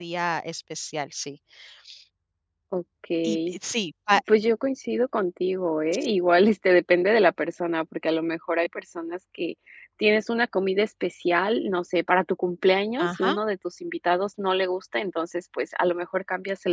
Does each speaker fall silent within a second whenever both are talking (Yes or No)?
Yes